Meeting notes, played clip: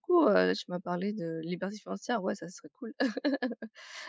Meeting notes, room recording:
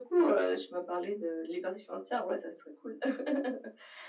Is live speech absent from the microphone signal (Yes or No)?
Yes